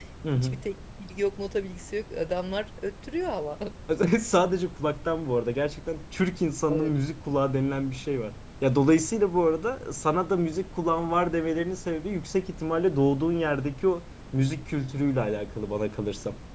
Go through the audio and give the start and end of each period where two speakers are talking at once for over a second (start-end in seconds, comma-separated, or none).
none